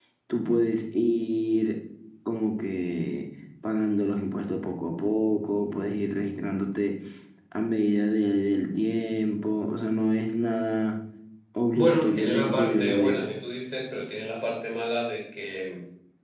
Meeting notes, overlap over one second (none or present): present